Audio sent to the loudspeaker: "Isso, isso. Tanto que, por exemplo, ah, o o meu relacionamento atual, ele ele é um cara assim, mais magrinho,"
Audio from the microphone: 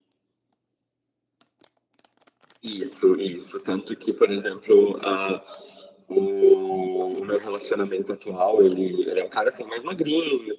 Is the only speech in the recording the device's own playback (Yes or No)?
Yes